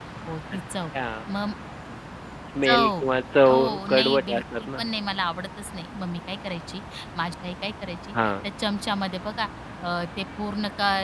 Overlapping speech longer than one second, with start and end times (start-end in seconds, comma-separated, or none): 3.5-4.8